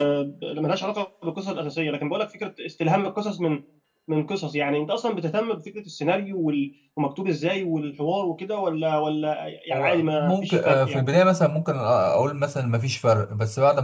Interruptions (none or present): present